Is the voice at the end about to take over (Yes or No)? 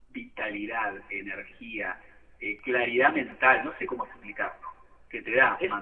No